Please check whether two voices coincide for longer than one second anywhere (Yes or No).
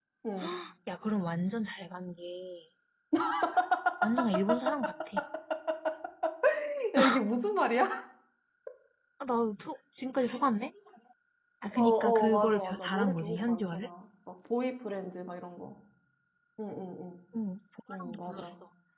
Yes